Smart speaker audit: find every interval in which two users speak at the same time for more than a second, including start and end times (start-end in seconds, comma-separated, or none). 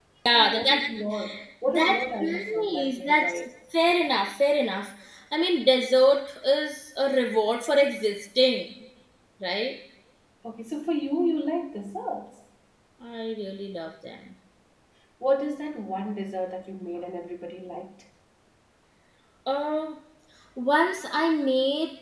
1.7-3.4